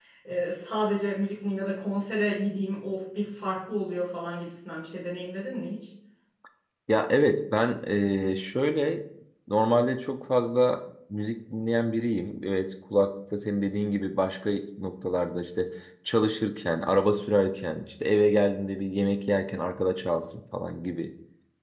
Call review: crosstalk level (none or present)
none